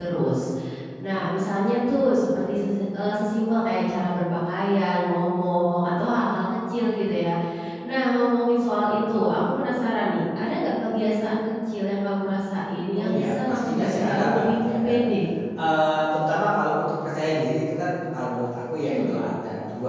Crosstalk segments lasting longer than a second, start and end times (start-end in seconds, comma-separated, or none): 12.9-15.1